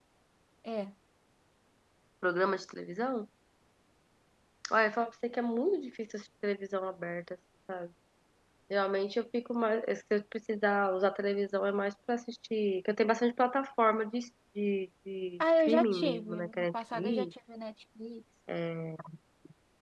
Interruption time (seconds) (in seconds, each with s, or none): 15.4 s